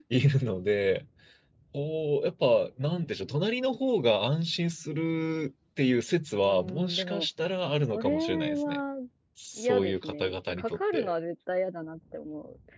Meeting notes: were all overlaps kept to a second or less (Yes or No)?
No